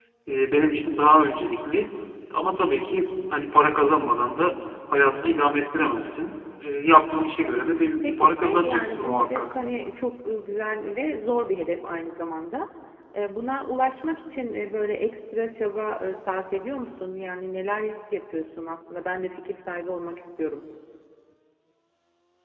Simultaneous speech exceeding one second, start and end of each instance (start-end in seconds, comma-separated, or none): 8.0-9.5